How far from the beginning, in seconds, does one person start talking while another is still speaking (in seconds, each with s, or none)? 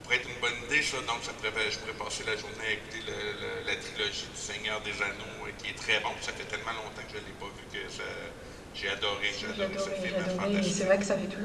9.3 s